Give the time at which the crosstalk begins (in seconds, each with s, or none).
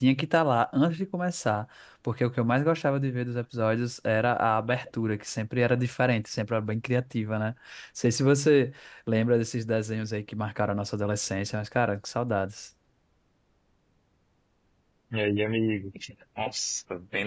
none